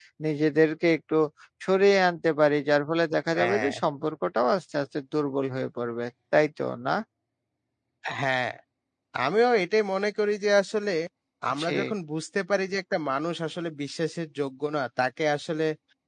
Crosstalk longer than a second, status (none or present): none